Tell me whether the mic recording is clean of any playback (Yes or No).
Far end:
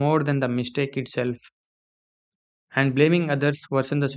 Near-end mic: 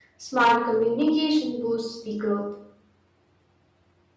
Yes